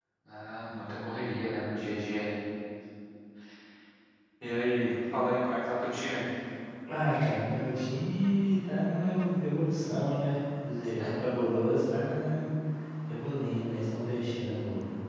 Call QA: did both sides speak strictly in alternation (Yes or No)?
Yes